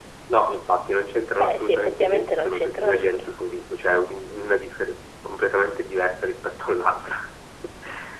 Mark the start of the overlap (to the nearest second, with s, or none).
1 s